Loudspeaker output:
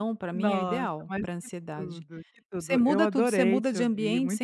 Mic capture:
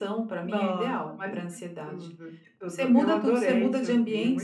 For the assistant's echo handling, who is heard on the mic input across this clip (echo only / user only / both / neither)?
echo only